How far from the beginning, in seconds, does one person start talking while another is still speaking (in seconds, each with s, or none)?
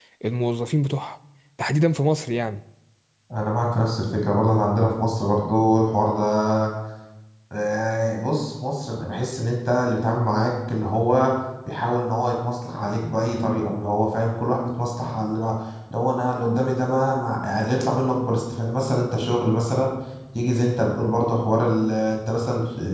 none